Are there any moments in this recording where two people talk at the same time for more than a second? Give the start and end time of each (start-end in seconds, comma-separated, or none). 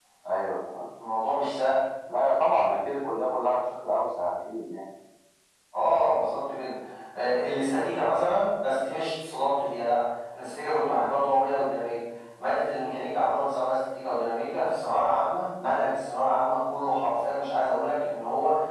none